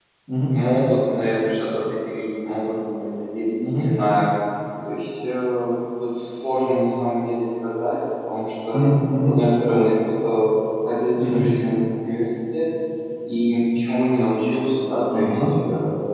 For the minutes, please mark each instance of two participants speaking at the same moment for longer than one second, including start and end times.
none

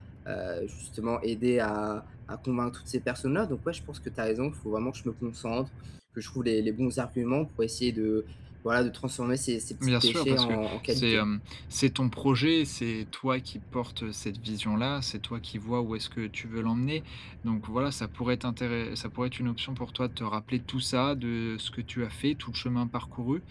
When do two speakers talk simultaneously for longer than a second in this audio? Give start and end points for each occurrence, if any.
9.8-11.2

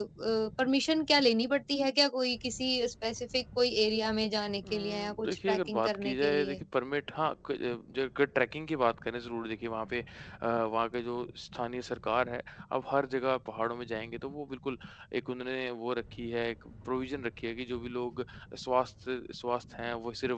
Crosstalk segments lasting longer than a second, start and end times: 4.7-6.6

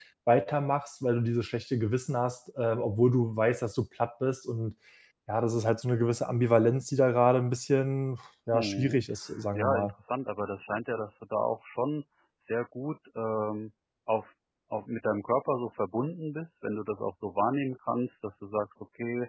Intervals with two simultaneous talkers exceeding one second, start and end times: none

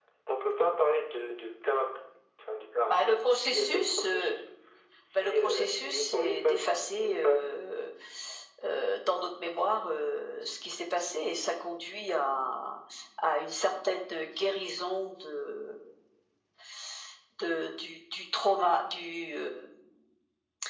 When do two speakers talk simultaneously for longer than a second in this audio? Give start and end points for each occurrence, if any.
2.9-4.3, 5.2-6.6

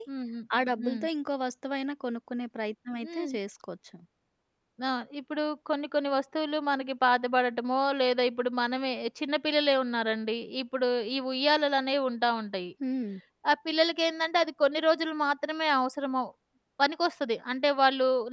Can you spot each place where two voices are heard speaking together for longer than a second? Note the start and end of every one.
none

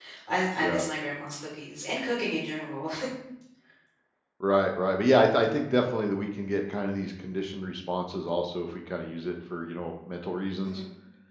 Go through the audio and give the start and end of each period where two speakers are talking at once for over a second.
none

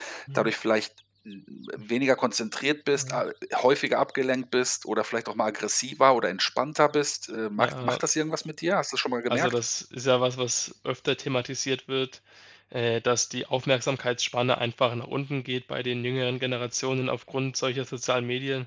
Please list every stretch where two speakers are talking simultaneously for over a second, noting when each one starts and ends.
none

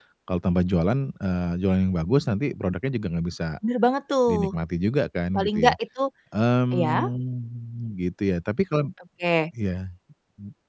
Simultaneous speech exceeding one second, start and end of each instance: none

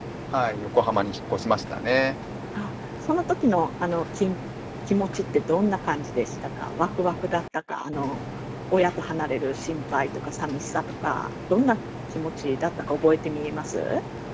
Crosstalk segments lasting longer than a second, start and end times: none

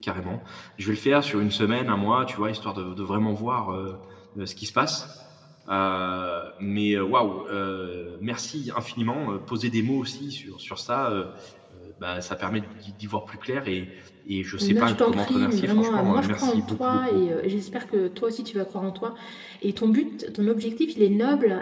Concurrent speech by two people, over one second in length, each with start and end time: 14.6-17.2

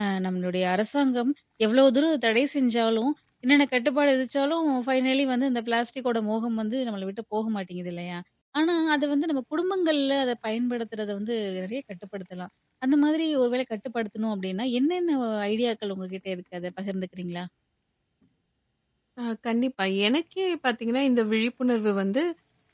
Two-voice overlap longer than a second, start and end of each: none

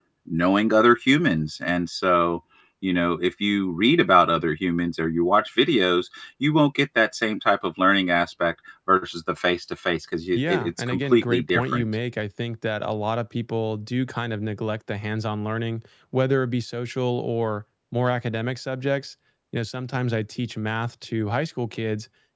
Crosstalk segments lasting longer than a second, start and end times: 10.3-11.9

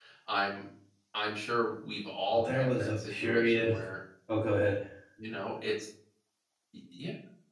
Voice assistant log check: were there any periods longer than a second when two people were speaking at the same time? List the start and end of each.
2.4-3.7

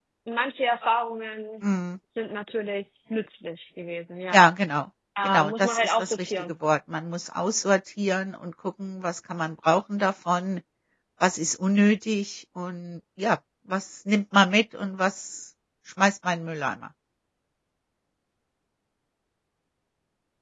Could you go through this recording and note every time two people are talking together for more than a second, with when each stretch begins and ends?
5.2-6.5

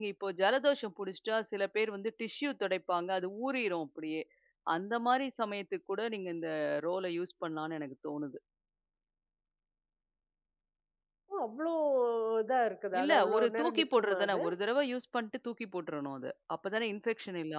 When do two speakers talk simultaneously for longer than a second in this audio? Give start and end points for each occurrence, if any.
13.0-14.4

